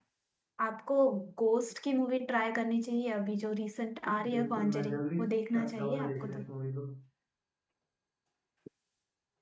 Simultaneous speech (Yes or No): Yes